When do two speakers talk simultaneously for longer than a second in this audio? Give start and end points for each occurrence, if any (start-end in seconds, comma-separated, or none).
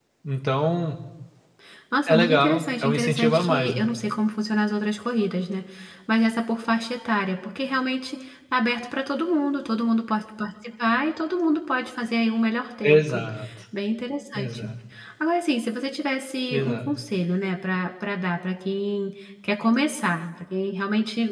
2.1-3.8